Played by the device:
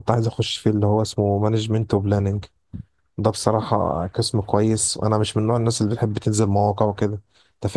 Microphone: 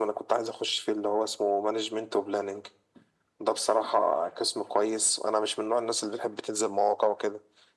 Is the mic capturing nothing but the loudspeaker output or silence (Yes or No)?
Yes